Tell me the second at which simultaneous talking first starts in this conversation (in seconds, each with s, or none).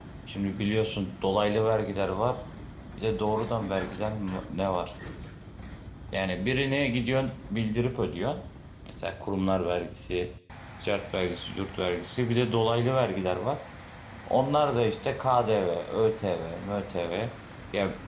none